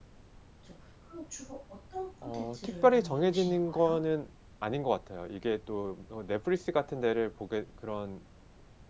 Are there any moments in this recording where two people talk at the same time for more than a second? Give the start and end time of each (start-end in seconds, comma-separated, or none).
2.3-4.0